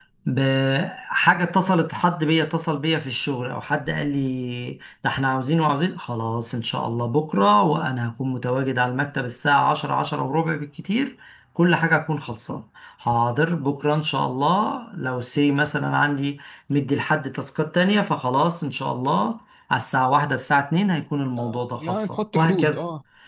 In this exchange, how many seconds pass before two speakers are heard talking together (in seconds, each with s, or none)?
21.4 s